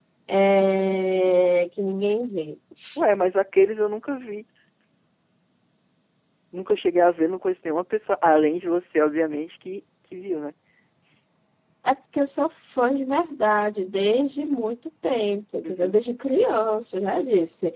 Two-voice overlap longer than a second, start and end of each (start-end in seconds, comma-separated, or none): none